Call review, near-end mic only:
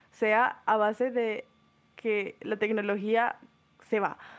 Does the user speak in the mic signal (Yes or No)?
Yes